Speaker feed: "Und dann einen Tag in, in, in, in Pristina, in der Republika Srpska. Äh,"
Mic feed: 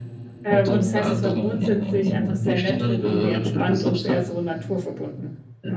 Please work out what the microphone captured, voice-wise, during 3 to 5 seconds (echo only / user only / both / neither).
both